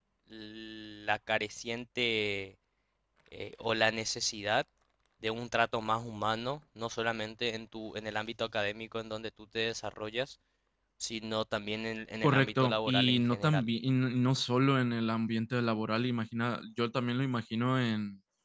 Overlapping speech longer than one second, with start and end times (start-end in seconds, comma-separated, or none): 12.2-13.6